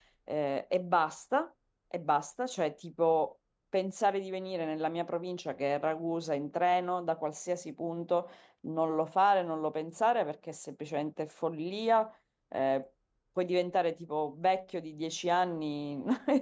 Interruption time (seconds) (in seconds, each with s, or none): none